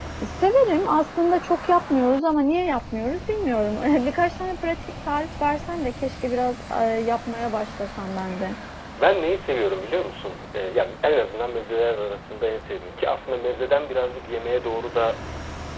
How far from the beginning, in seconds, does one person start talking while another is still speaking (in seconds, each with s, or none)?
none